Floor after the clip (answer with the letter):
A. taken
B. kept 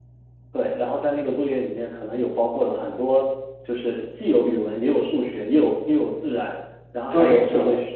B